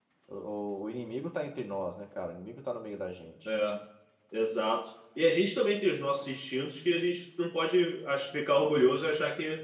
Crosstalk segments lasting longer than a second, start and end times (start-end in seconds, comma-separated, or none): none